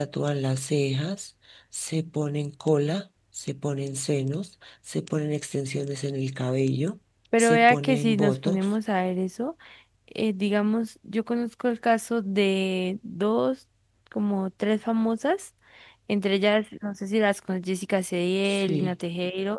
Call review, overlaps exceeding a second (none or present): present